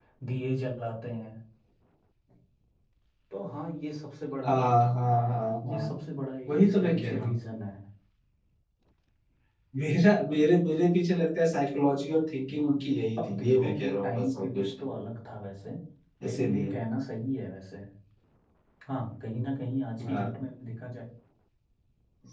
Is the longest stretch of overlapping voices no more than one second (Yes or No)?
No